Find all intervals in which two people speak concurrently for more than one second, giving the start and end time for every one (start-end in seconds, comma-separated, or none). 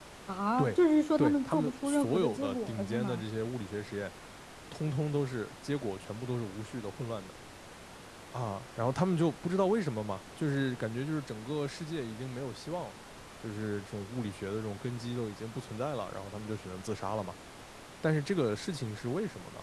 1.2-3.2